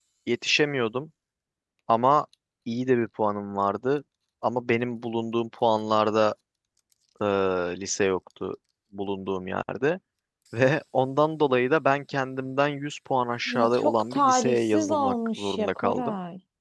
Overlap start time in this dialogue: 13 s

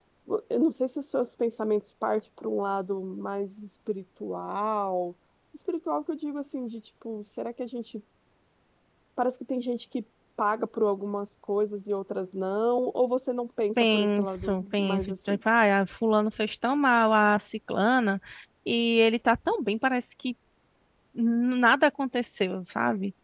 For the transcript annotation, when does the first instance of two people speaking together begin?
14 s

